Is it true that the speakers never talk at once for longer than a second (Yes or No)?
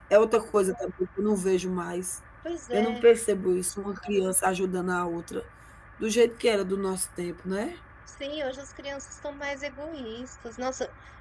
Yes